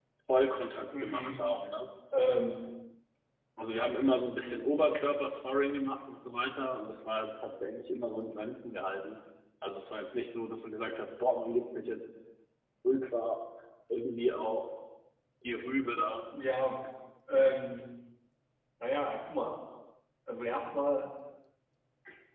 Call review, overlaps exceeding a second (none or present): none